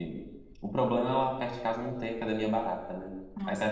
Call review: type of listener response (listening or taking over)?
taking over